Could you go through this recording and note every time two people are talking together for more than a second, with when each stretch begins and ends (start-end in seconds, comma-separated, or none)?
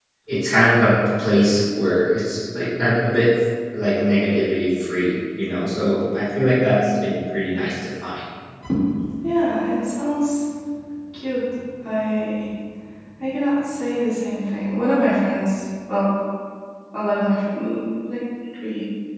none